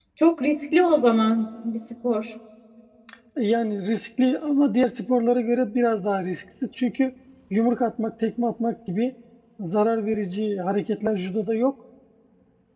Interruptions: none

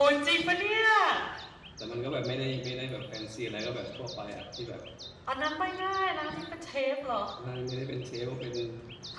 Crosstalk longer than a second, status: none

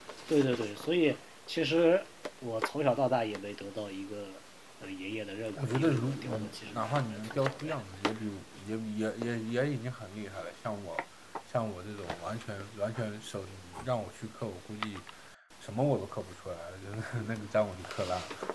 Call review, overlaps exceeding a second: present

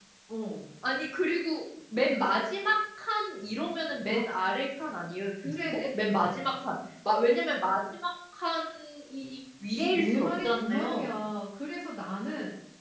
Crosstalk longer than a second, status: present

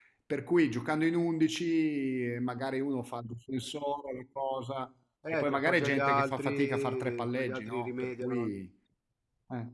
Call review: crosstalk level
present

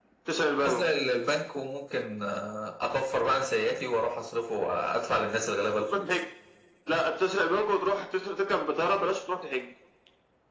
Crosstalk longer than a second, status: none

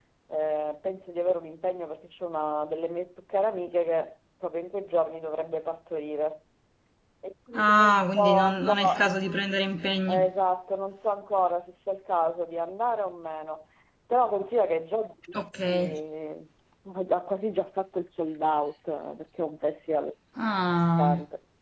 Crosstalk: present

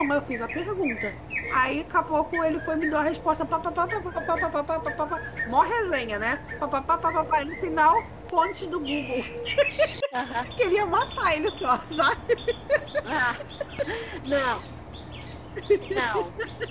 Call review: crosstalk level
none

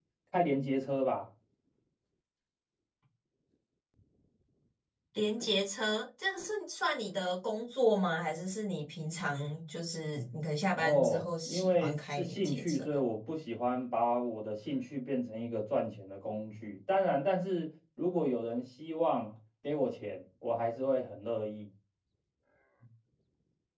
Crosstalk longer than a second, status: present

